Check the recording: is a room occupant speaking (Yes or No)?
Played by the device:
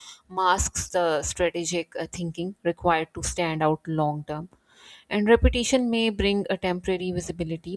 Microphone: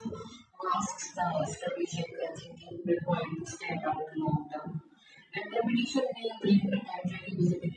No